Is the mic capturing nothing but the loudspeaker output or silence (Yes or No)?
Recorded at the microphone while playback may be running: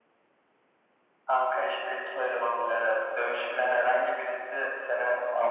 Yes